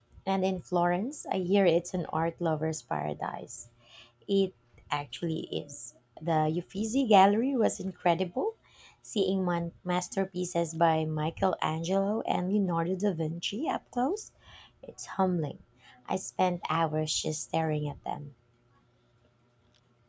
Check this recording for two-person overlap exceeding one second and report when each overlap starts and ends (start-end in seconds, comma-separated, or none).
none